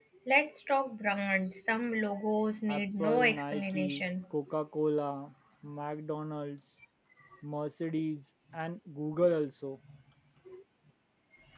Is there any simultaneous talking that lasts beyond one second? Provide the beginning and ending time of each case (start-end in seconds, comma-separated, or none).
2.7-4.0